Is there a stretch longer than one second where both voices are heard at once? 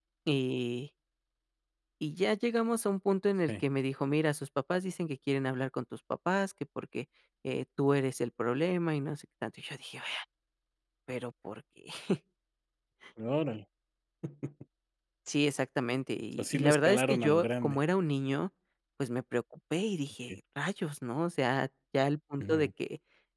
Yes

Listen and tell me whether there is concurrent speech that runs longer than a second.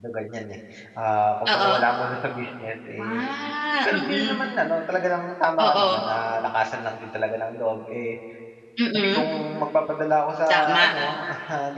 No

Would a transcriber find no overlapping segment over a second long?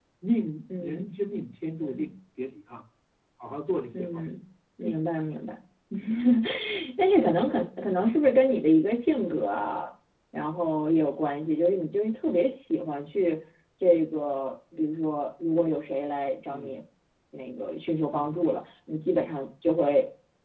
Yes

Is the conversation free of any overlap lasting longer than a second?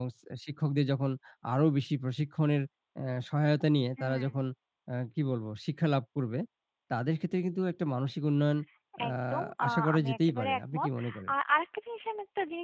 No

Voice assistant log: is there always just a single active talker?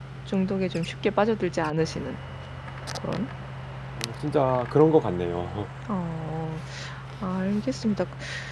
Yes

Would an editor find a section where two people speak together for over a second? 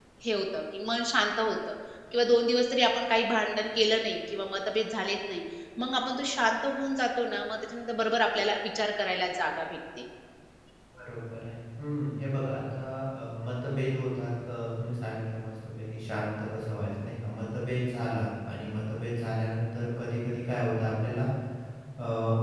No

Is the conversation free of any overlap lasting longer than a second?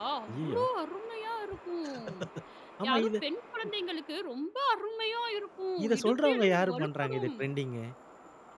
No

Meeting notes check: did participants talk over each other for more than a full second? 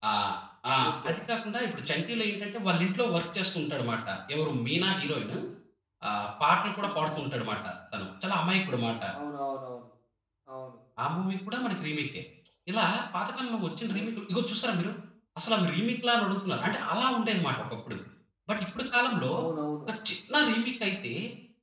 No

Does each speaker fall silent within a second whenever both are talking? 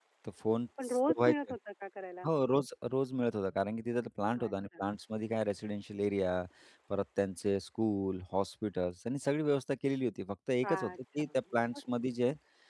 No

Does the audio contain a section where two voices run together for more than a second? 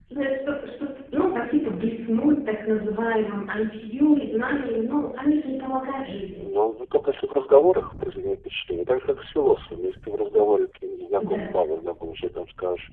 No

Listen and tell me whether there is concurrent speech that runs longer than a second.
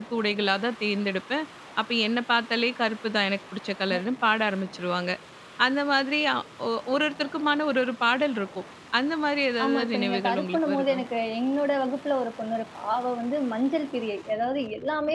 Yes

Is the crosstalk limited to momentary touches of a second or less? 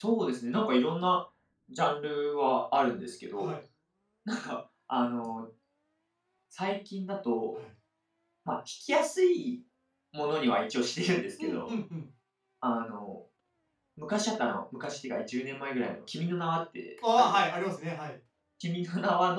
Yes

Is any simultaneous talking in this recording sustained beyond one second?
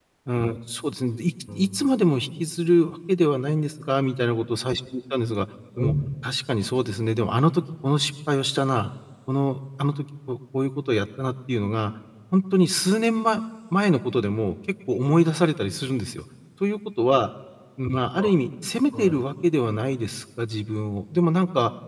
No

